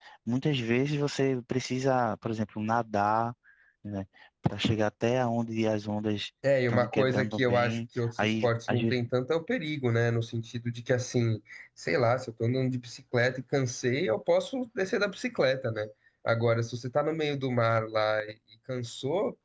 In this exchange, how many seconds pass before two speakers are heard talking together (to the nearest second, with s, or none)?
7 s